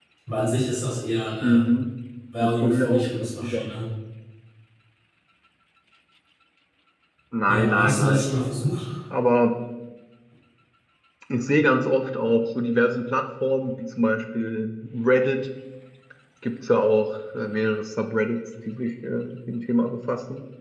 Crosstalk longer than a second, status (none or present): present